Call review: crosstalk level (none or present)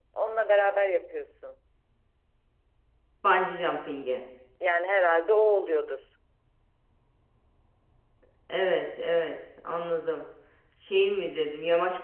none